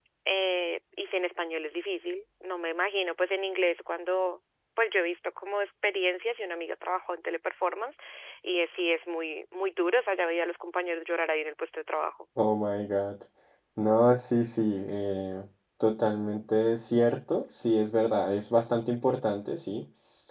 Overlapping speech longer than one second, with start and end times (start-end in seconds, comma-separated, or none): none